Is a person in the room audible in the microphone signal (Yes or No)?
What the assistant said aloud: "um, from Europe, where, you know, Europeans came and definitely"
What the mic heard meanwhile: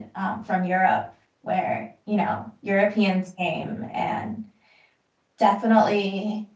No